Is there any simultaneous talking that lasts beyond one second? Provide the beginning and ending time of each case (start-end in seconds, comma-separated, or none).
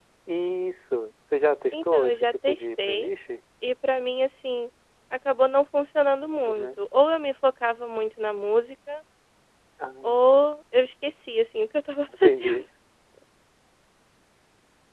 1.7-3.1